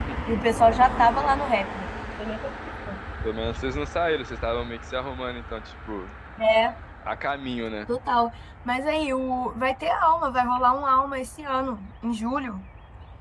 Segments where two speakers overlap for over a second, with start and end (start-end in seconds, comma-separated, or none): none